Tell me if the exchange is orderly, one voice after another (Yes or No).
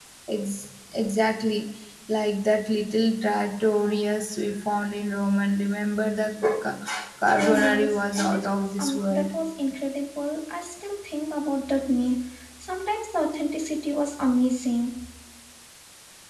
No